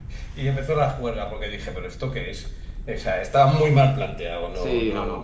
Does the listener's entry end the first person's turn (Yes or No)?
Yes